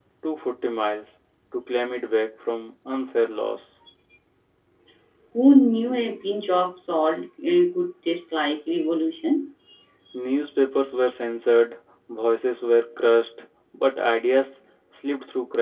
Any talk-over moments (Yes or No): No